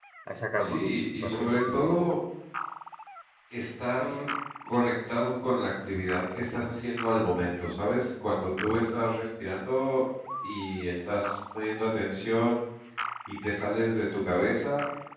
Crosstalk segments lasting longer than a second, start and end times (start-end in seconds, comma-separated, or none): 0.6-2.0